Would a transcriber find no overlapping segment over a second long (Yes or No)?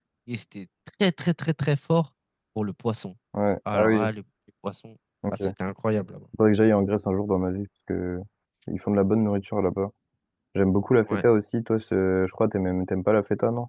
Yes